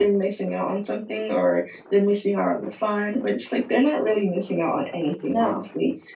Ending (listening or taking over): listening